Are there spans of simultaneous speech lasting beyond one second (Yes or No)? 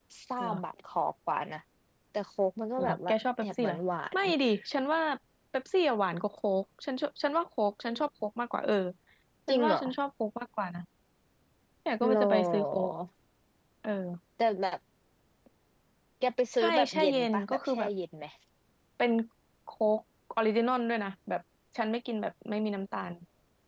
Yes